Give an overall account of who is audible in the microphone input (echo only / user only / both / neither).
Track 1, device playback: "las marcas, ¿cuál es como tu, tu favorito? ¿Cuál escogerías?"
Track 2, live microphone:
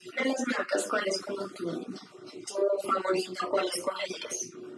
echo only